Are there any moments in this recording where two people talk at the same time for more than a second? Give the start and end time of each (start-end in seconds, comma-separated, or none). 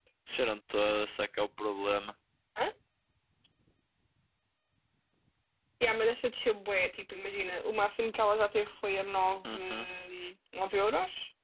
none